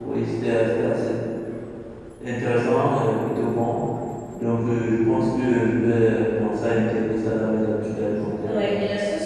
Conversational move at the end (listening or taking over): taking over